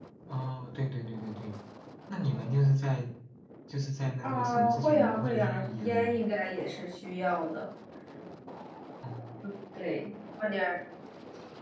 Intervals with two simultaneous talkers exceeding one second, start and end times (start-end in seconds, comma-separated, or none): 4.2-6.1